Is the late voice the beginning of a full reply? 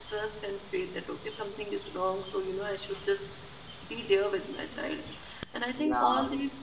No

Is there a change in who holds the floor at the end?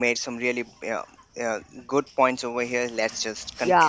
No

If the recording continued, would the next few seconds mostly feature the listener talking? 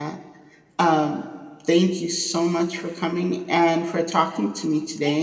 Yes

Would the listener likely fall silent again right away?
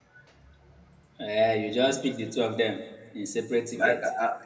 No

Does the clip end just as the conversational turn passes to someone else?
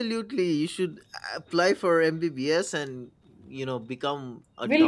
Yes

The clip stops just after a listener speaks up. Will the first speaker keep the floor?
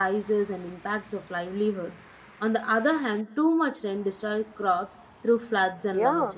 No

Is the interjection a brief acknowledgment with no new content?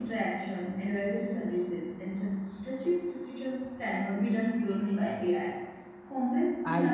Yes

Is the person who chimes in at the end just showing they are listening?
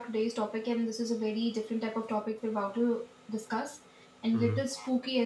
Yes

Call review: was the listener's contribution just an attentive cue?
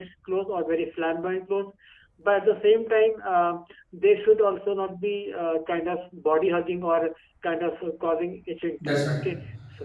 Yes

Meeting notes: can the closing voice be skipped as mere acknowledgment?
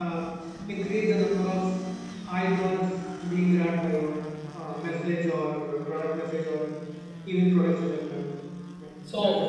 No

